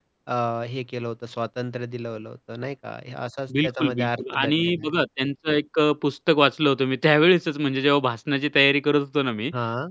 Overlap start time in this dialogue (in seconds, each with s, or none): 3.5 s